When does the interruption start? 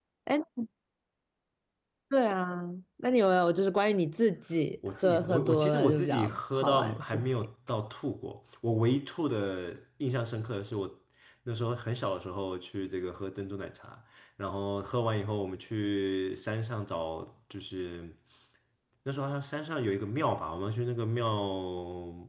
5 s

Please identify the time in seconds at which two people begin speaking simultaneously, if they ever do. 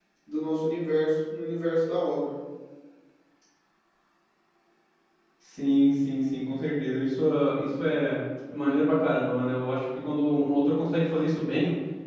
none

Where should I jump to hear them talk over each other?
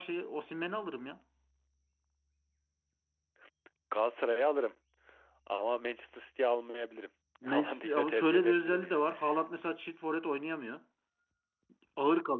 7 s

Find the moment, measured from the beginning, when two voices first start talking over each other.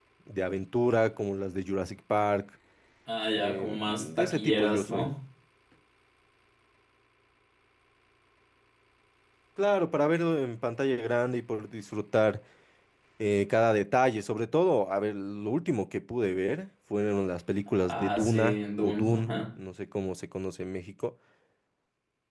3 s

